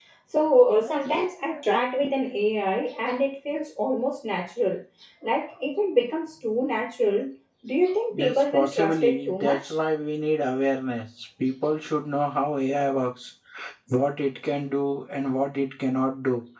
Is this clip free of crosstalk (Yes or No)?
No